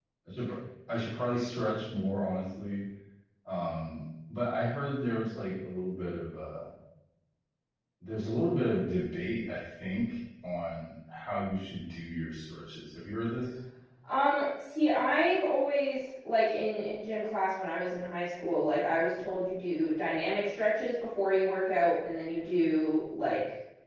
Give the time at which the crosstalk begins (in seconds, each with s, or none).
none